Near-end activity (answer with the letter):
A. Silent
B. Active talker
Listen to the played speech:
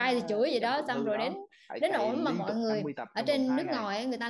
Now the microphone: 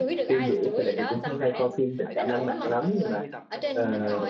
B